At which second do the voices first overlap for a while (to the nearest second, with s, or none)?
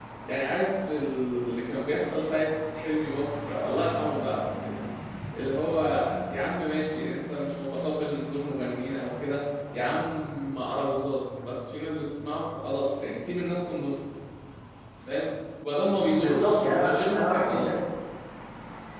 16 s